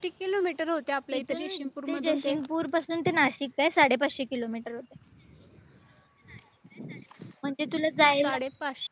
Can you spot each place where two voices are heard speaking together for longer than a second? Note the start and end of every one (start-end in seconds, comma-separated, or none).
1.2-2.4